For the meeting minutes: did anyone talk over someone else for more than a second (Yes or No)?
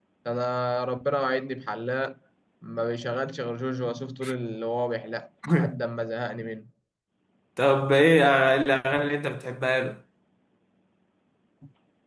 No